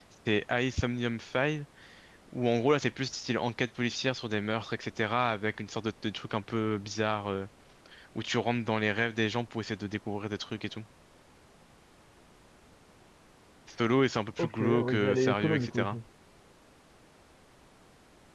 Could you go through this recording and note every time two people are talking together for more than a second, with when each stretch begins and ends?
14.4-16.0

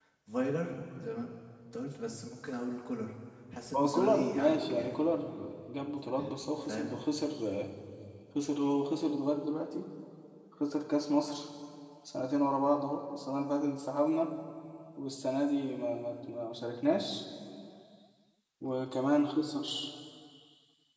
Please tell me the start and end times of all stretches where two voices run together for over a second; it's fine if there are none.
3.8-5.0

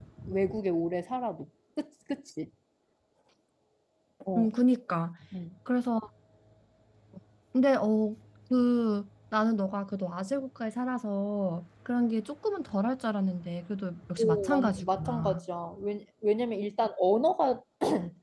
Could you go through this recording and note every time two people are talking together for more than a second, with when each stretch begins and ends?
14.2-15.4

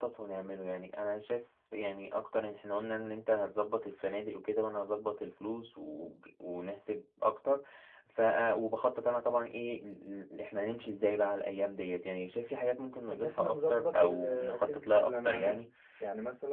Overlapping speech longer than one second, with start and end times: 13.1-15.6

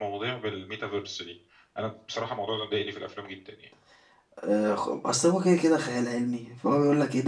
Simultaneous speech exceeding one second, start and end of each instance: none

